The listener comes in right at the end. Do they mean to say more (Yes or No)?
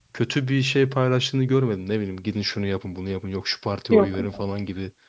No